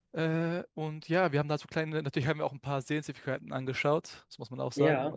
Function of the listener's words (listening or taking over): listening